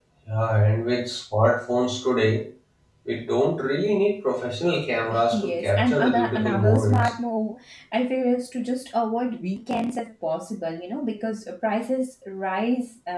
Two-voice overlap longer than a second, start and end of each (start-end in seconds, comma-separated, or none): 5.3-7.1